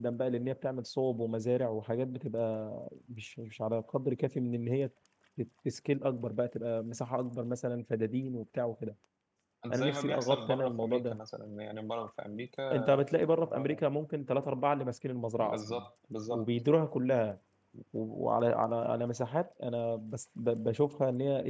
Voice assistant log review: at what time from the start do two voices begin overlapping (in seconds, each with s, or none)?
9.7 s